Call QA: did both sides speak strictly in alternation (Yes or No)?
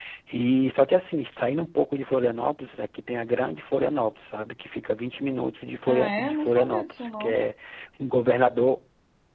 No